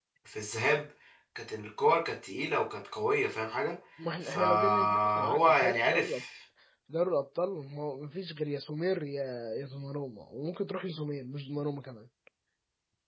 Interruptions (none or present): present